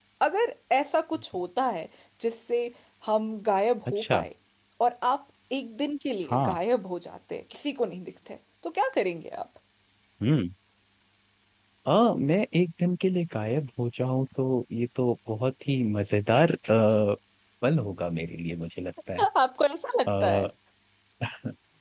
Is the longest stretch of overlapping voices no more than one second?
Yes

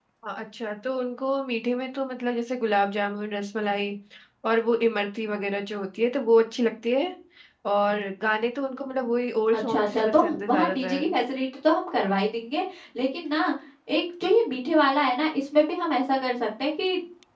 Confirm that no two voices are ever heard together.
No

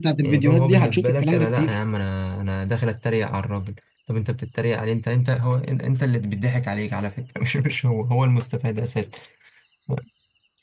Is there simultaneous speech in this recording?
Yes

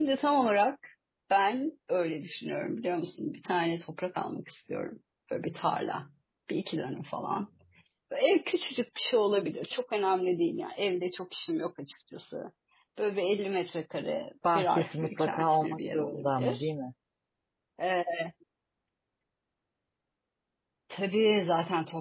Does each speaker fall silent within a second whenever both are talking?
No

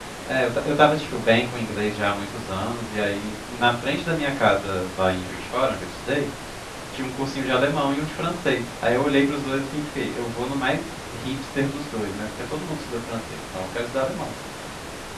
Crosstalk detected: No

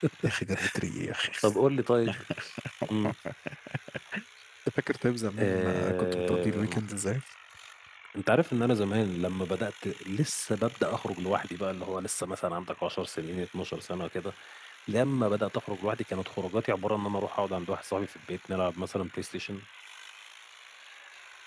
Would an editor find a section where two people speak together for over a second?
Yes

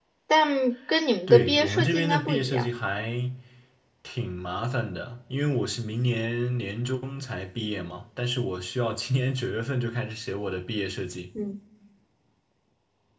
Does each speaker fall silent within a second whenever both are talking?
No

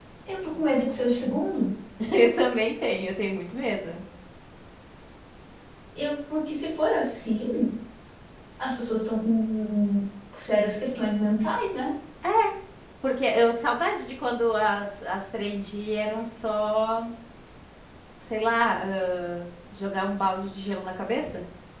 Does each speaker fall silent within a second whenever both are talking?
Yes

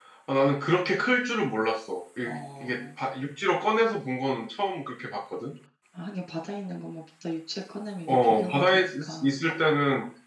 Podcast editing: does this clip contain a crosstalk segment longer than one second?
Yes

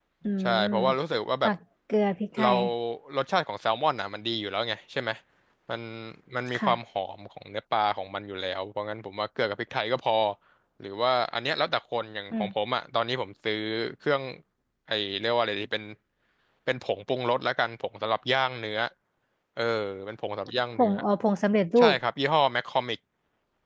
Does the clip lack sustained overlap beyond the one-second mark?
Yes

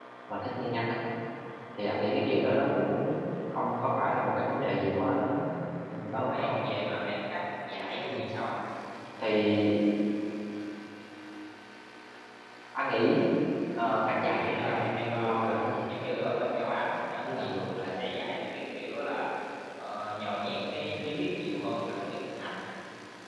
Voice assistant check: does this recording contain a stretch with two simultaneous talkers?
Yes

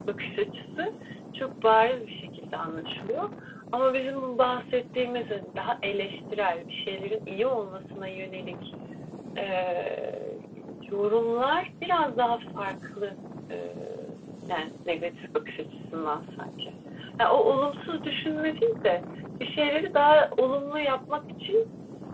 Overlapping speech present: No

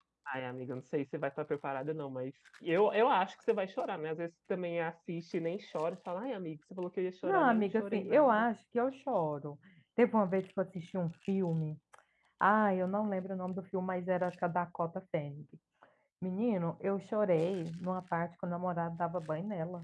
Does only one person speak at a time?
No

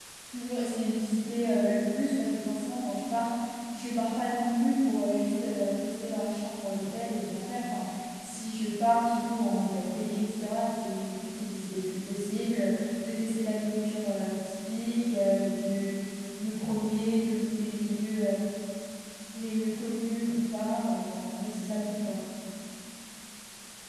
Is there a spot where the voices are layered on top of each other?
No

